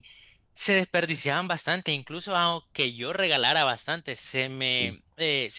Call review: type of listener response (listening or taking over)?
listening